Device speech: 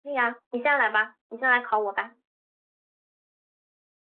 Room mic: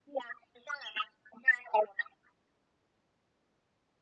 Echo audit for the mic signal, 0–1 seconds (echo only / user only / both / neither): echo only